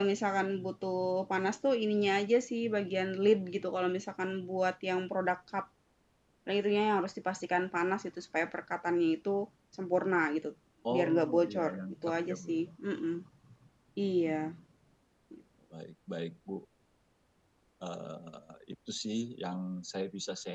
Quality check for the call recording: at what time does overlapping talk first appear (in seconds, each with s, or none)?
10.9 s